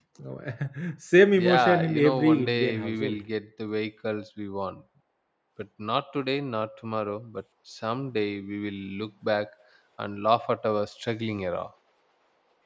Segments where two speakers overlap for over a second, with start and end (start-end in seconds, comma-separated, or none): 1.4-3.2